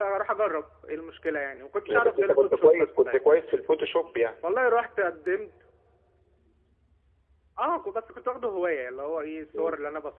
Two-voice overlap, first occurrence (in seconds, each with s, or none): 1.8 s